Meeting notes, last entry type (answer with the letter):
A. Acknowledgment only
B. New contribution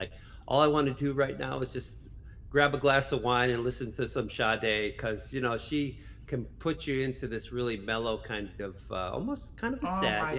B